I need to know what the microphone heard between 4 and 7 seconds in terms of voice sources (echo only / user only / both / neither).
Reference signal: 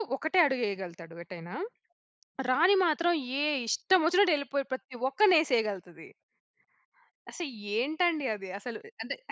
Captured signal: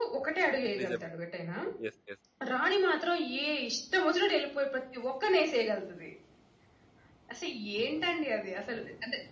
echo only